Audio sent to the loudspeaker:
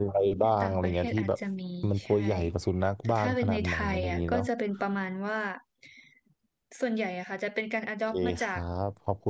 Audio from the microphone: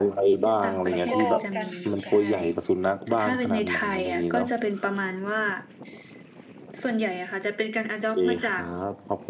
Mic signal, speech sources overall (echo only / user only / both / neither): both